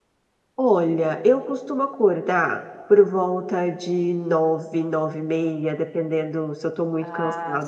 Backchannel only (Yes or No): Yes